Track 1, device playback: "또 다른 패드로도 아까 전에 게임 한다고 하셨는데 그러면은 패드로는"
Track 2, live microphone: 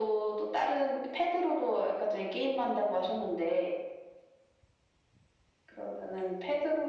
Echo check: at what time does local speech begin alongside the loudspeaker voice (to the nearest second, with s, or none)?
none